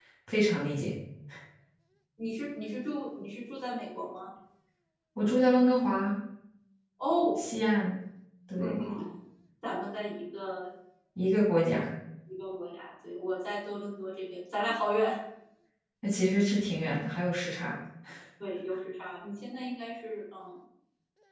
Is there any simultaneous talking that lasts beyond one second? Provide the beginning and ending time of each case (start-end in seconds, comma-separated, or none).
none